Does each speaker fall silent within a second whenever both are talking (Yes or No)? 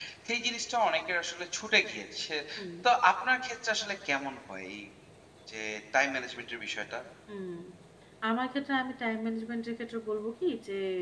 Yes